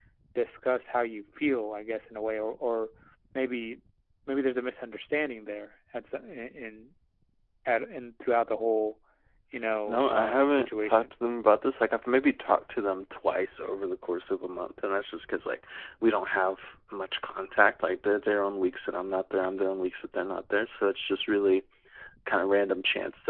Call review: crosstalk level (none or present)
present